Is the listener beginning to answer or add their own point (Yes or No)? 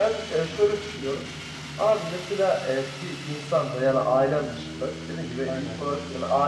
No